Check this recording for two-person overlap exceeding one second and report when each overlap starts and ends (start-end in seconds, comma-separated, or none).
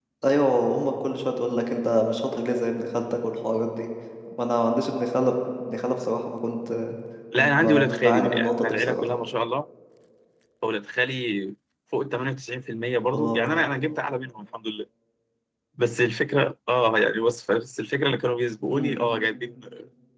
7.4-9.0